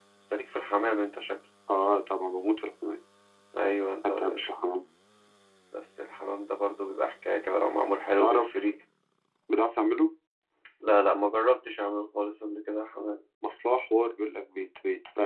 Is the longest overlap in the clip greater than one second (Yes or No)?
No